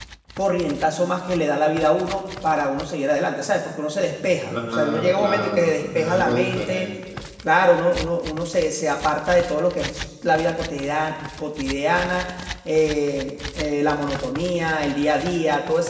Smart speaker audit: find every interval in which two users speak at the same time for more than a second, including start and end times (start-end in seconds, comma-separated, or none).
4.5-6.9